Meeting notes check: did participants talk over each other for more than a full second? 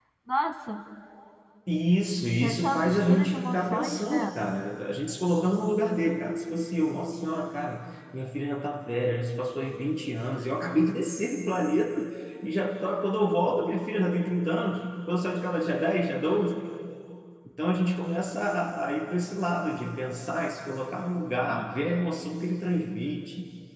Yes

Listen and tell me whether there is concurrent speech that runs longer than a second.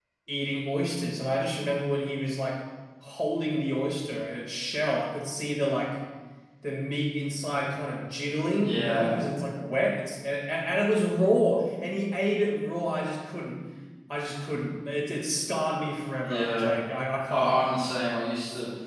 No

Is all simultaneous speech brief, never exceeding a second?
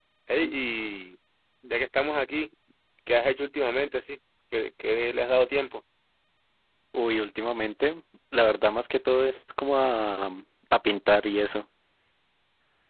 Yes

